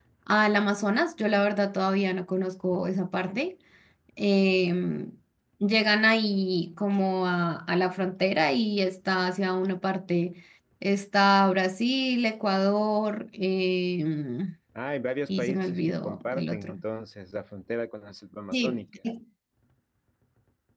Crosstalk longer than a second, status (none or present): present